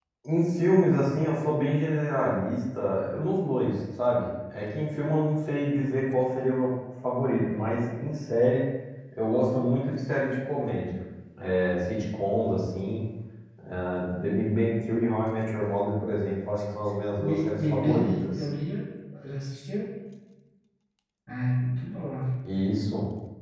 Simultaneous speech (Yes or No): Yes